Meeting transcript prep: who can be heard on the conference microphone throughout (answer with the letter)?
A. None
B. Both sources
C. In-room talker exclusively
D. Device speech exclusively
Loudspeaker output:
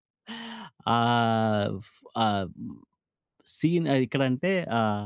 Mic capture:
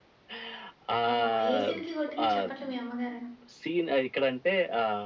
B